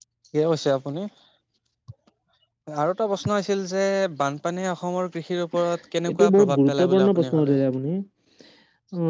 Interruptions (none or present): present